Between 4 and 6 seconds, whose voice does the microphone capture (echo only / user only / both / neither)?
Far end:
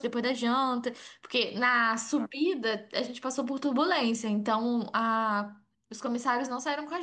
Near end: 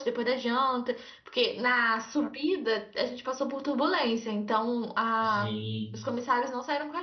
both